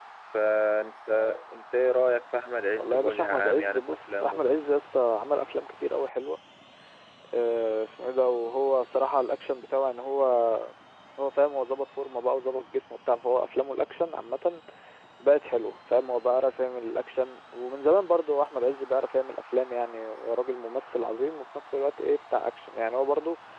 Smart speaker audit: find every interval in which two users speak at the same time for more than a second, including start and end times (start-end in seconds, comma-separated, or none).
2.7-4.6